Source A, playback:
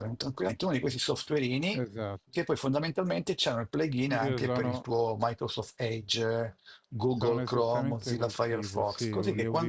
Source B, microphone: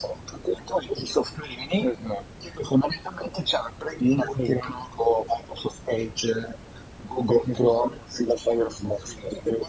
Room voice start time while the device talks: none

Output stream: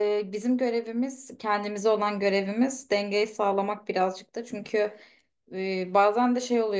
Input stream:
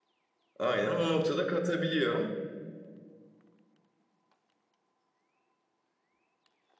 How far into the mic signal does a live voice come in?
0.6 s

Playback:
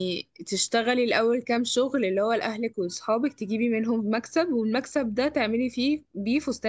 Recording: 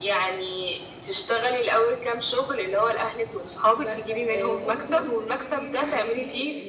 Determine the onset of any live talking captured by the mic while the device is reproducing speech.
3.7 s

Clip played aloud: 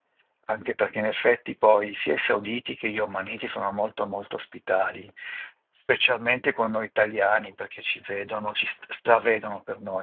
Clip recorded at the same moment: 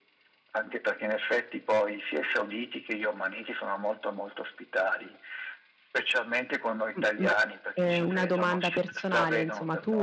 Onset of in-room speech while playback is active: 7.0 s

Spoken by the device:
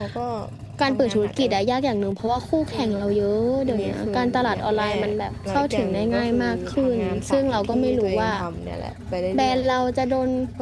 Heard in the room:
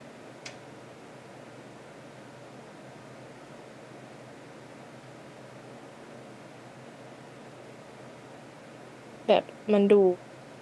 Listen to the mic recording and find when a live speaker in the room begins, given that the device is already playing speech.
9.3 s

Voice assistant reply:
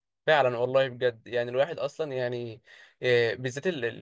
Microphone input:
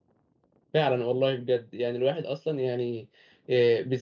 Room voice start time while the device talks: none

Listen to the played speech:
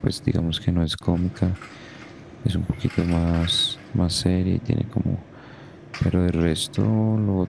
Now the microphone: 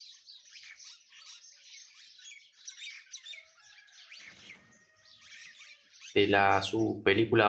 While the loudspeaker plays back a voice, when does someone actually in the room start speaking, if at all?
6.1 s

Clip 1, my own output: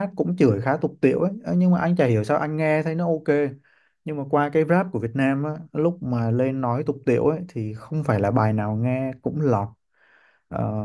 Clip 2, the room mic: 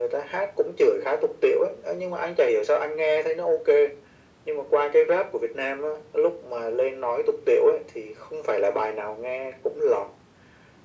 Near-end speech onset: none

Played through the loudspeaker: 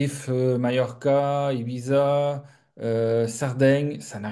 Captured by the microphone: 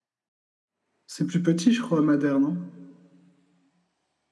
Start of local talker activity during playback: 1.1 s

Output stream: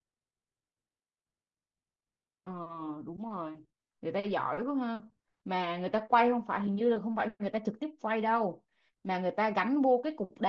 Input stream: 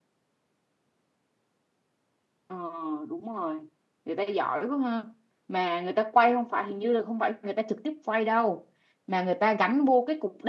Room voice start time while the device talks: none

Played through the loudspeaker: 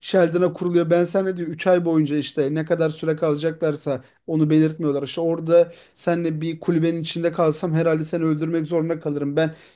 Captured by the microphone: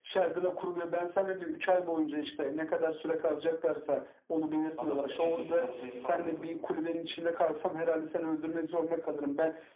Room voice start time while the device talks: 4.8 s

